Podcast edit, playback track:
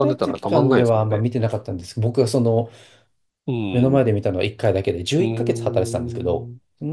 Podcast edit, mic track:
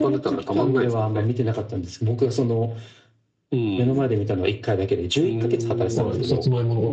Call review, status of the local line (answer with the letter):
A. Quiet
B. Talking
B